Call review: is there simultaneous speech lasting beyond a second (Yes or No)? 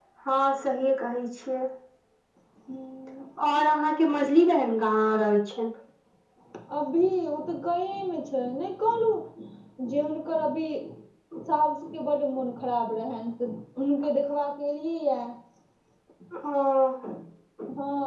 No